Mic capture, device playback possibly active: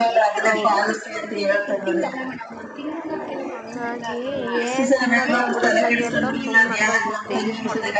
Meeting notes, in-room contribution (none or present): present